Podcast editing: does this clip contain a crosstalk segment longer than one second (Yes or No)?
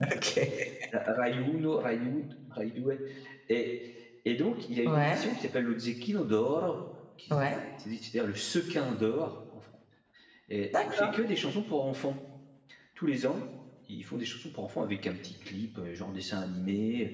No